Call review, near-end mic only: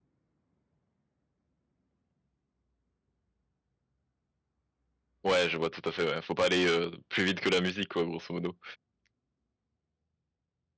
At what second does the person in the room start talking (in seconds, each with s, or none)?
5.2 s